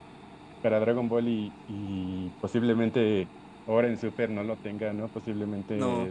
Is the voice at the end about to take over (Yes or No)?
No